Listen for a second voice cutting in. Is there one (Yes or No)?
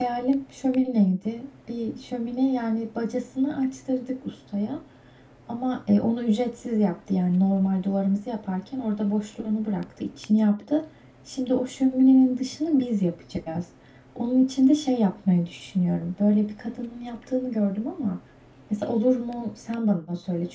No